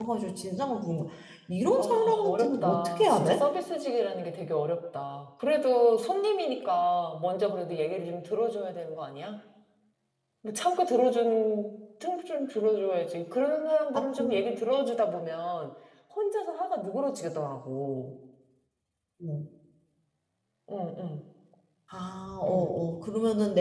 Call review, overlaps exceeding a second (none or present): present